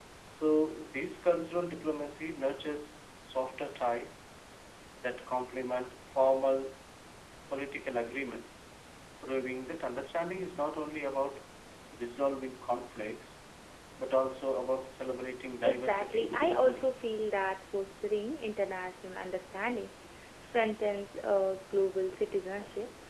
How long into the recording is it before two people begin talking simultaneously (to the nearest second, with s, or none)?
16 s